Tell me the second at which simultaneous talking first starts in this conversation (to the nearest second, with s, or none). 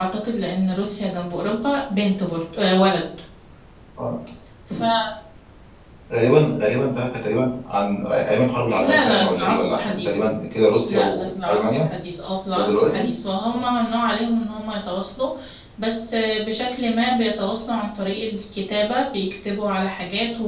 9 s